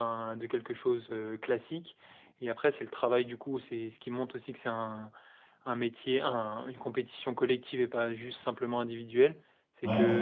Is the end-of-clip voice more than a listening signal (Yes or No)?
No